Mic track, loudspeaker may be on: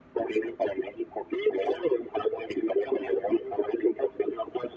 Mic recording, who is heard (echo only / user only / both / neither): echo only